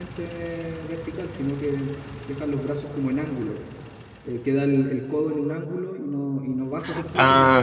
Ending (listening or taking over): listening